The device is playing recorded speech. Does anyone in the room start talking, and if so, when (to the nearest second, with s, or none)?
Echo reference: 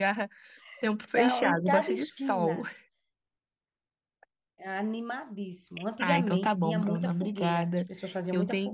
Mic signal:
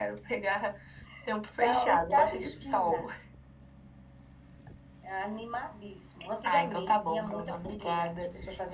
none